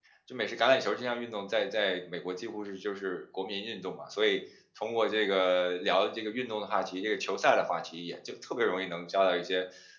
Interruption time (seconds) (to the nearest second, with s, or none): none